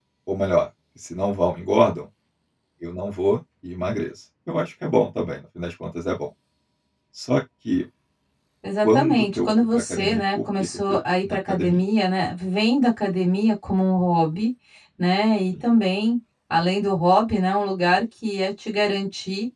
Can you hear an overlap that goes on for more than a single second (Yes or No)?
Yes